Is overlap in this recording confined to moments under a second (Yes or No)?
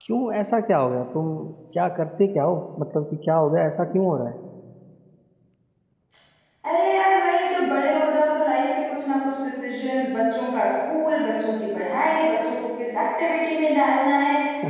Yes